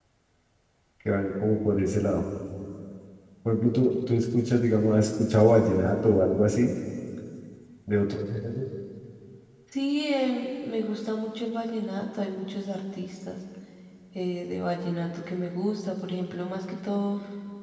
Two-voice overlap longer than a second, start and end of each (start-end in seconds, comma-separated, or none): none